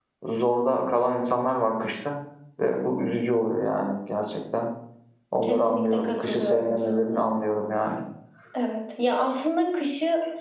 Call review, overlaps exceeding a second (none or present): present